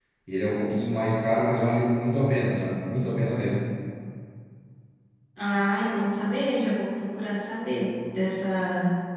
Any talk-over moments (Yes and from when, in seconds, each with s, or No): No